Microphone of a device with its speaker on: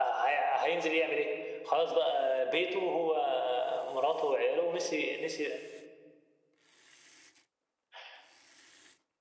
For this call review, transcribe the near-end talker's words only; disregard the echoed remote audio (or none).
none